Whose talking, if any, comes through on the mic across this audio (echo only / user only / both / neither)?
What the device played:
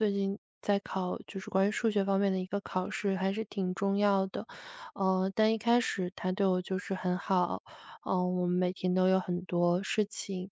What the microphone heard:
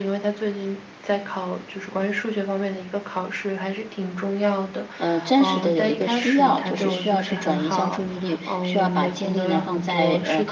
both